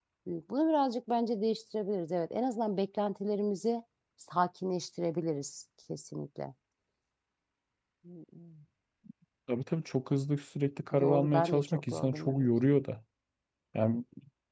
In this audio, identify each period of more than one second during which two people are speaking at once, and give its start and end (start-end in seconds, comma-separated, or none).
10.9-12.5